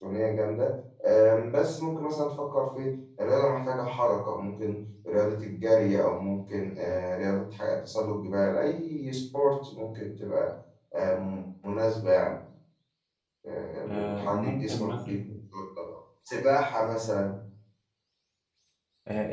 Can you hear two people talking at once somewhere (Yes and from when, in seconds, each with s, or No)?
Yes, from 13.9 s